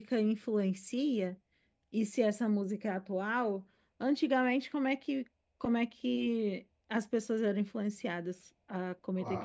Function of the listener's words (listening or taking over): taking over